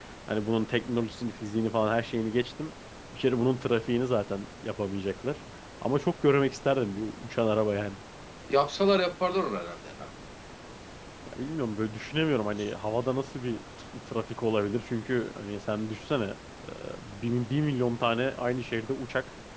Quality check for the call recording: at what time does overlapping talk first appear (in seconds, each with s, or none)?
none